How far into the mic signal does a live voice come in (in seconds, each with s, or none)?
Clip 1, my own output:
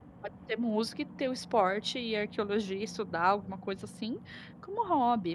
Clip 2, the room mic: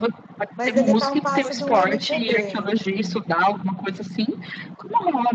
0.6 s